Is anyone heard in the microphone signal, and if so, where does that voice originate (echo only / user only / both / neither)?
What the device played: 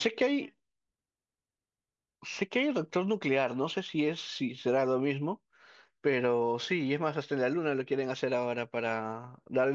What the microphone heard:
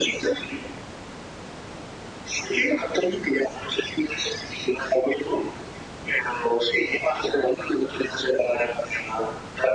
echo only